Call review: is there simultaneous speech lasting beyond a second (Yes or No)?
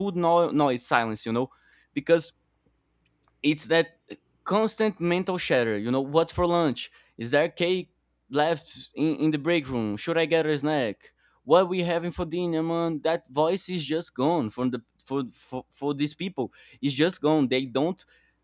No